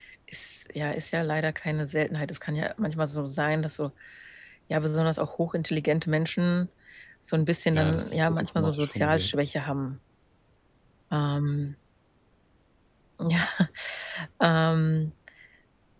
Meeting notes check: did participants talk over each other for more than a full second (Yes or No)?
Yes